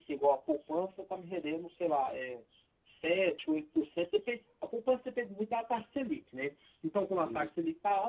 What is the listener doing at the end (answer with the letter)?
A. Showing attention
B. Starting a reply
A